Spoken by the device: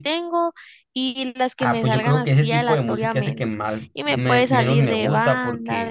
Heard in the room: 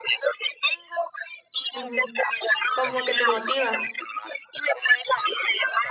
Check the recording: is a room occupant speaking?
Yes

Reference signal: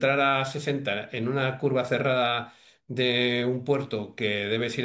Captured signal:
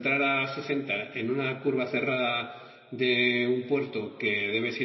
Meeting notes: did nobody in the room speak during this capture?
Yes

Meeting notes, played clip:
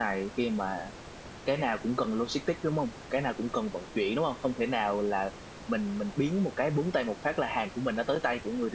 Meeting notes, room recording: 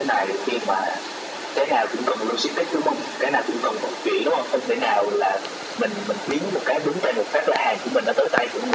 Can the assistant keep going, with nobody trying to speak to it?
Yes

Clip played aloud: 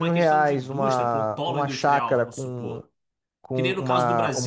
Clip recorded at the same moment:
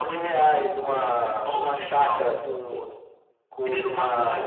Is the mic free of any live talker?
Yes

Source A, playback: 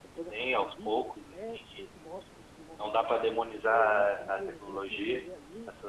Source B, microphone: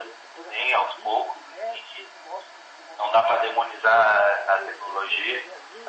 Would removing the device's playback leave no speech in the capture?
Yes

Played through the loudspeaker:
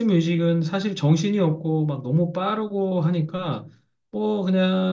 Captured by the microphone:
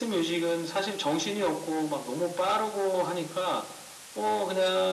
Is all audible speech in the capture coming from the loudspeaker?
Yes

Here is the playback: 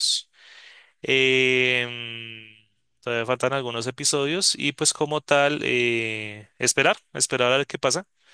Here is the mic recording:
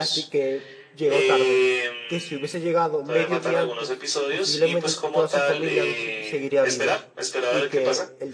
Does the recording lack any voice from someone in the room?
No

